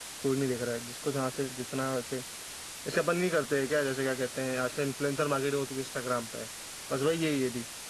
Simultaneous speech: No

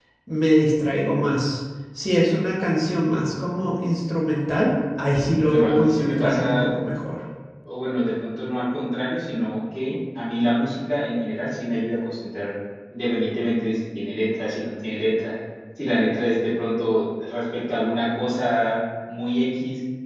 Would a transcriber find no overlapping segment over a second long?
No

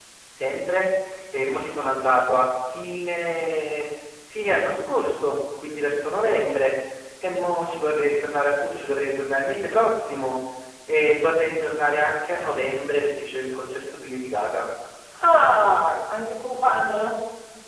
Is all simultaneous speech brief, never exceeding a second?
Yes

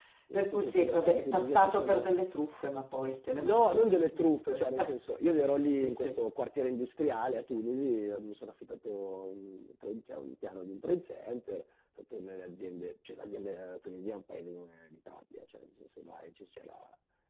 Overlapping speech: Yes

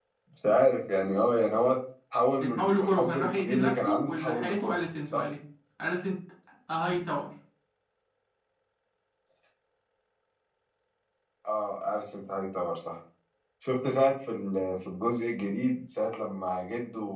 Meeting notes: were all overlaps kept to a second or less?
No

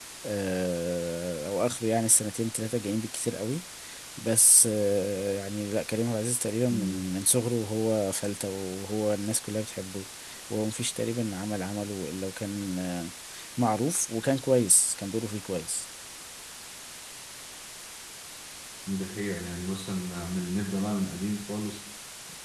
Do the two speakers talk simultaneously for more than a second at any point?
No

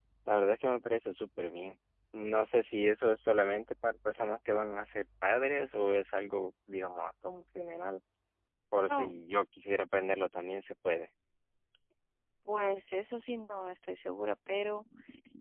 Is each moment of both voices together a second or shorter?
Yes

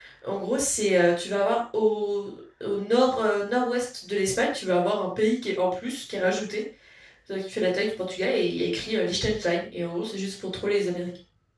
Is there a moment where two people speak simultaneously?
No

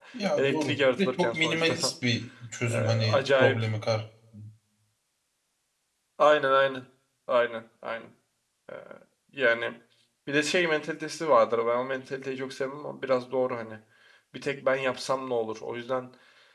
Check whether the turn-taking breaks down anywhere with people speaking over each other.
Yes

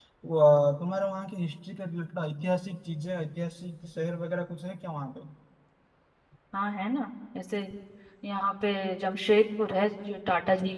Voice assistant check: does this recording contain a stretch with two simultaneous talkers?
No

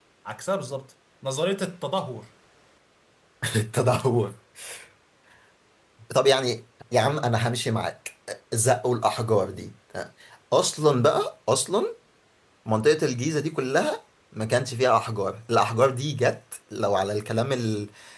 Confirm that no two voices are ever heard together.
Yes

